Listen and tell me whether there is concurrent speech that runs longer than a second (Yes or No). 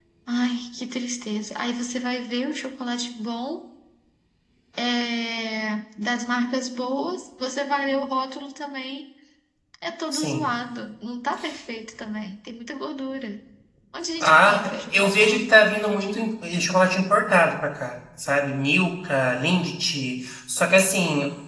Yes